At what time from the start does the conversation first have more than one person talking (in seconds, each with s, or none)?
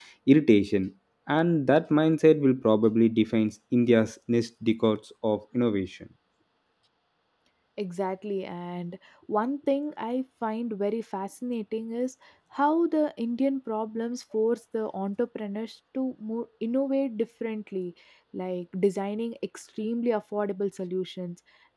none